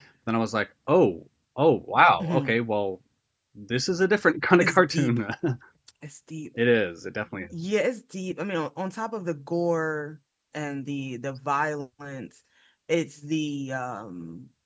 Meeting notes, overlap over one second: none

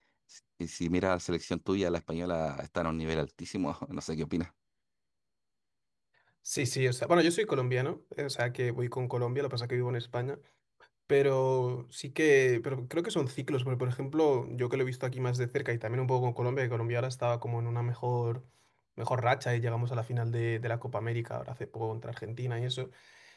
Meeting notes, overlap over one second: none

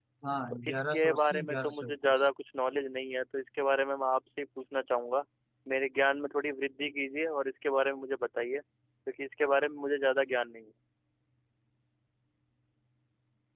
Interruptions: present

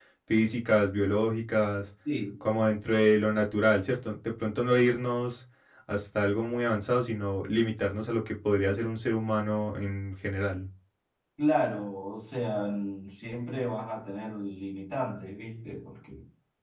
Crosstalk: none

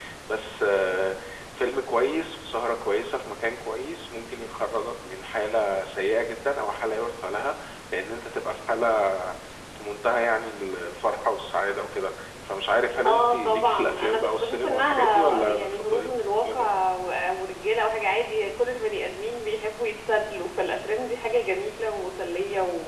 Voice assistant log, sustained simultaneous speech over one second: present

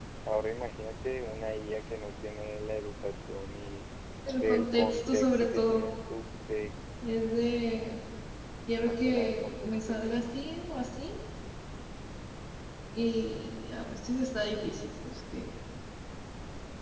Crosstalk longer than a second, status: present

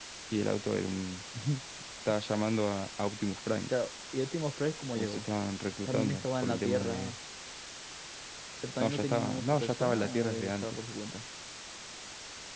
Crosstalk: present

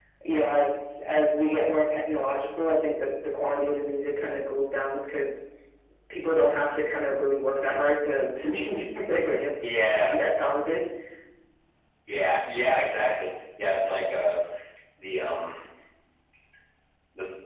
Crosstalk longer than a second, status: none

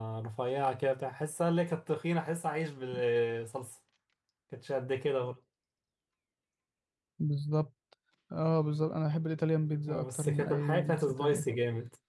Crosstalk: present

